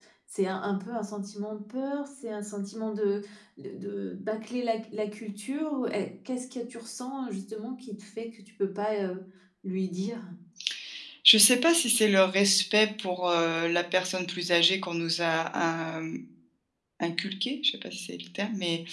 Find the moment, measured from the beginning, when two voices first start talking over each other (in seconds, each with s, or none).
none